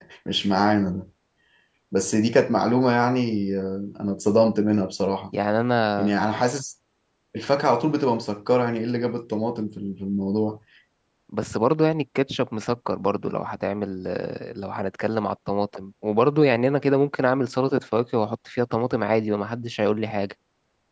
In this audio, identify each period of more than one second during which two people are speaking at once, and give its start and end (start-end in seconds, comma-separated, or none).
none